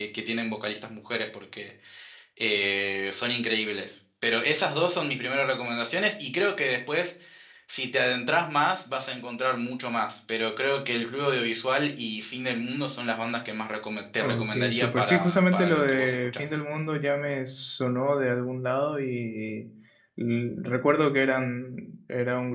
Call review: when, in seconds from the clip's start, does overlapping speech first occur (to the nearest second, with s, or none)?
14 s